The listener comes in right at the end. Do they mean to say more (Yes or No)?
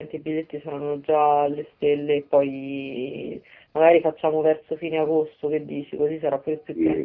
Yes